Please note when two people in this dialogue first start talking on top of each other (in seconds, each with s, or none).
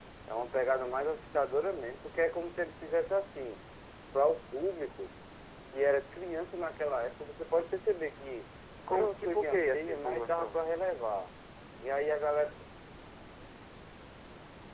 8.9 s